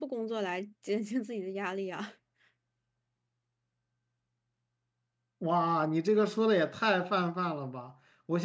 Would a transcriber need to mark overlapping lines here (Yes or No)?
No